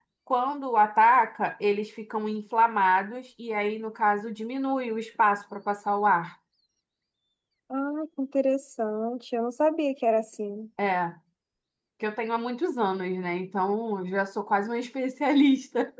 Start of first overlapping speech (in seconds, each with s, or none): none